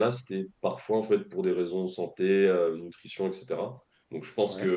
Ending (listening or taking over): listening